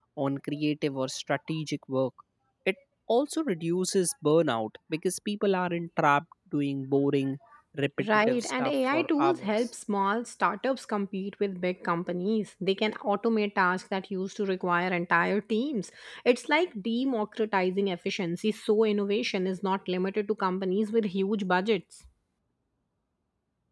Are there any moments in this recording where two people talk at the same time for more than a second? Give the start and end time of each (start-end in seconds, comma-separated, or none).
8.1-9.7